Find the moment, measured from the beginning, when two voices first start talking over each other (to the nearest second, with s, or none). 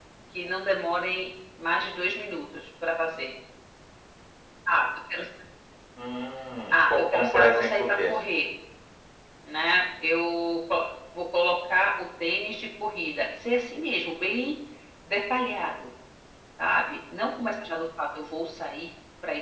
7 s